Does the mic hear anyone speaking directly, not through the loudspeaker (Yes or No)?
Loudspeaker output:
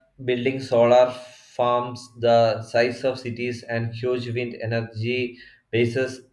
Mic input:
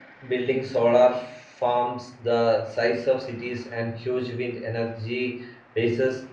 No